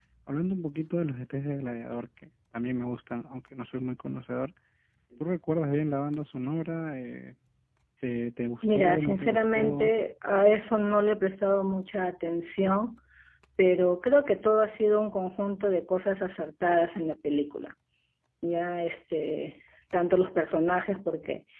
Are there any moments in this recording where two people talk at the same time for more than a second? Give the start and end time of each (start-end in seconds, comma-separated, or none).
8.6-9.9